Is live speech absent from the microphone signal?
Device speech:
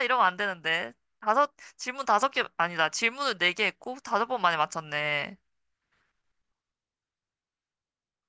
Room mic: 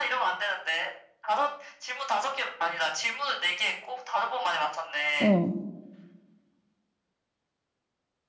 No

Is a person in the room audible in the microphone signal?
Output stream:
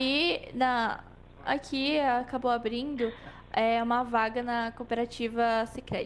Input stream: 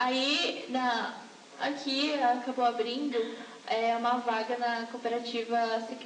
No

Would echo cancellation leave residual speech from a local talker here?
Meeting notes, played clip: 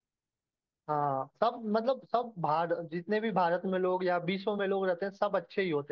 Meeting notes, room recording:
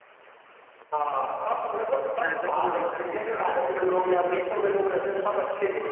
Yes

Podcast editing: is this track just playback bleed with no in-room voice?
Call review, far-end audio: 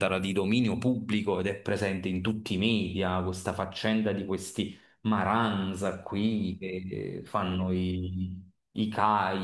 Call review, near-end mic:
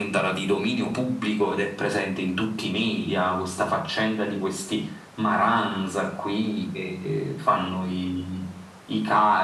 Yes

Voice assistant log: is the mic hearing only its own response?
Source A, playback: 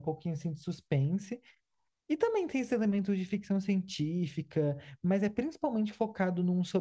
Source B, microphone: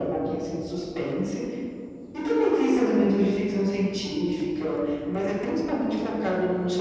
Yes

